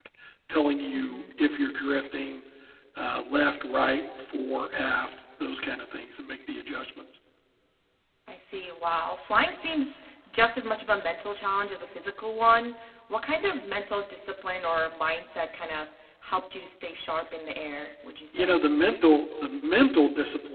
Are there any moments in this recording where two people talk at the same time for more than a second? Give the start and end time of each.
none

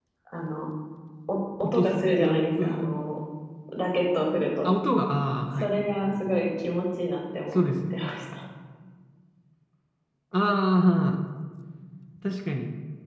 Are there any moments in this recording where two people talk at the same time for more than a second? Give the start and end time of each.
1.6-2.9

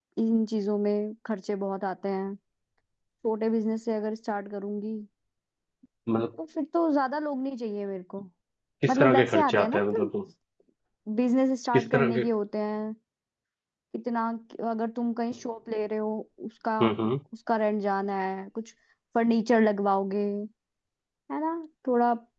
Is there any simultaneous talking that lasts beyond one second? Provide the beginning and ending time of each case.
8.9-10.1

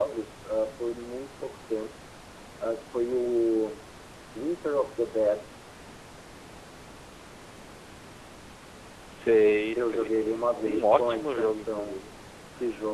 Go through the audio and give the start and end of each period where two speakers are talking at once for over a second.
9.8-12.0

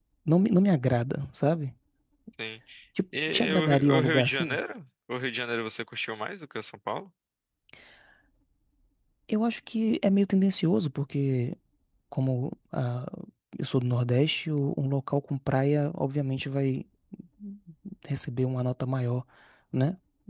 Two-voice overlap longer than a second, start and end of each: 3.3-4.6

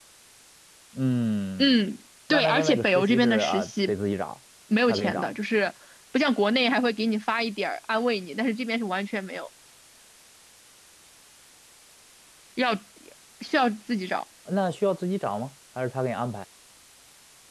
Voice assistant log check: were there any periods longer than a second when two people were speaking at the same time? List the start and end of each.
2.3-3.9

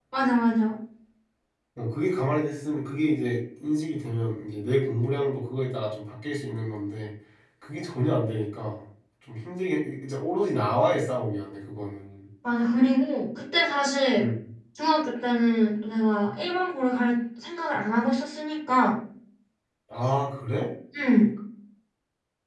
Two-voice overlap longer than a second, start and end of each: none

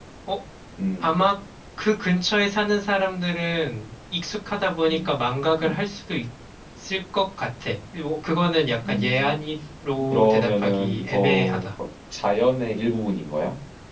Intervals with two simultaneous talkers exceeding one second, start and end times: 10.1-11.7

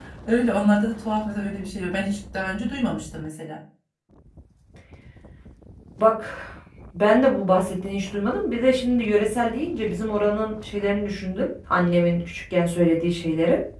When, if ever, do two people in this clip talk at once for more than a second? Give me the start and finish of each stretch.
none

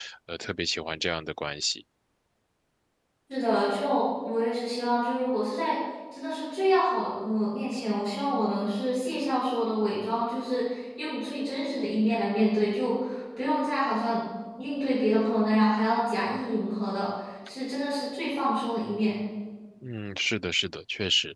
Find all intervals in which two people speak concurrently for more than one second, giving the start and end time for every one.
none

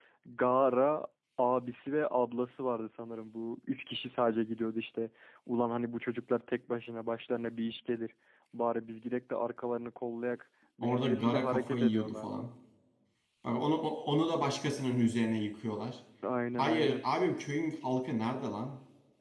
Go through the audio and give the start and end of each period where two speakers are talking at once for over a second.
10.8-12.4

